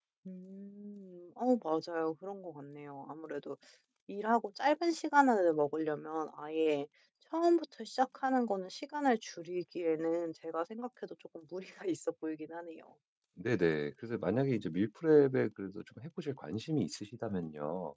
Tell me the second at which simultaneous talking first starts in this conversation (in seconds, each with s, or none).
none